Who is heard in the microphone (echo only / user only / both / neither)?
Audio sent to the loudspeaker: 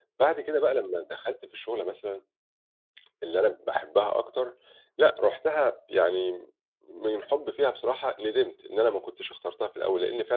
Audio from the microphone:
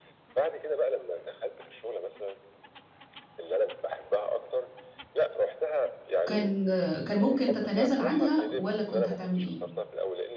both